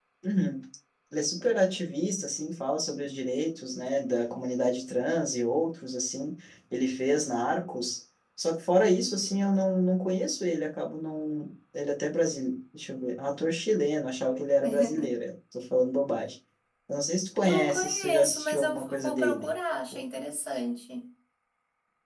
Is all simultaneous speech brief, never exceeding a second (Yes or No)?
No